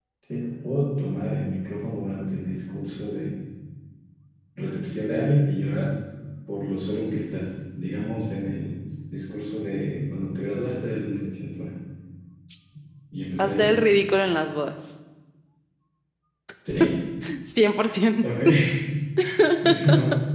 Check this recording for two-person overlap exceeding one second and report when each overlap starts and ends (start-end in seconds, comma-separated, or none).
none